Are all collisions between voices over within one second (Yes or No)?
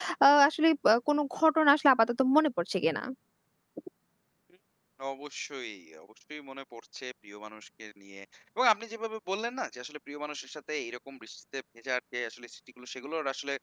Yes